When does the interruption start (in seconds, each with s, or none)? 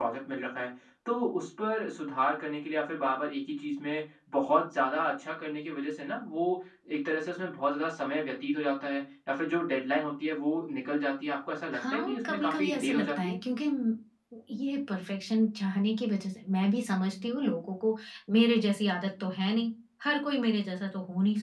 11.7 s